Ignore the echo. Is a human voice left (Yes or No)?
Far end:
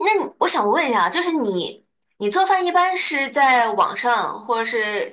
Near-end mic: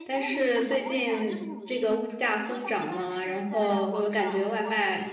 Yes